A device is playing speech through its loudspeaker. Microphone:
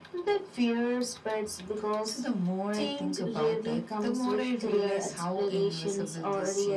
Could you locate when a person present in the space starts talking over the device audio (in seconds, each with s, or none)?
none